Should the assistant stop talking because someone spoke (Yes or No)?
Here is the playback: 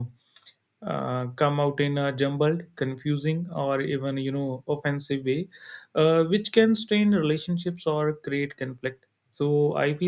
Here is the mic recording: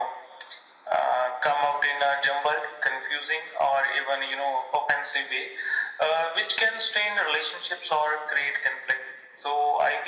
No